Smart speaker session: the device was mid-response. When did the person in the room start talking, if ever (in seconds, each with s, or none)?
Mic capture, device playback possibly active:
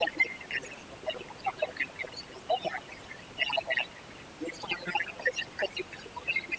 none